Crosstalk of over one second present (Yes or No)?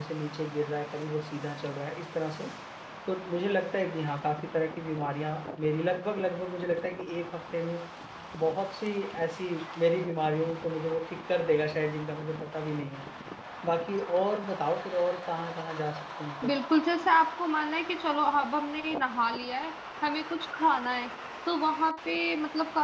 No